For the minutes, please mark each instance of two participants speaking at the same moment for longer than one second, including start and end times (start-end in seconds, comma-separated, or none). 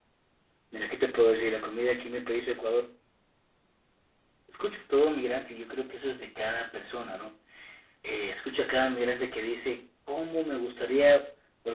none